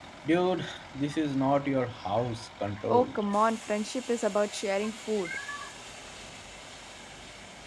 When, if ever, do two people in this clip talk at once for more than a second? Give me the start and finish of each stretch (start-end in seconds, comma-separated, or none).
none